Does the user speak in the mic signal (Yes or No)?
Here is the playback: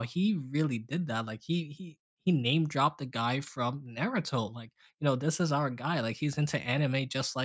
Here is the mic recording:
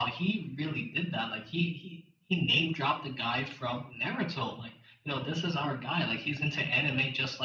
No